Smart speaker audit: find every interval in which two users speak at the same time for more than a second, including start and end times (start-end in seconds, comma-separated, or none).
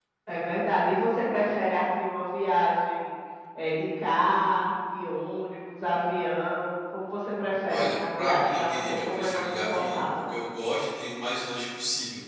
7.7-10.0